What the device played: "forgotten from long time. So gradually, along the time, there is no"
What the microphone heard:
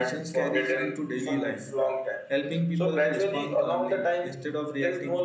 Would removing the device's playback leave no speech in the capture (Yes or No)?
No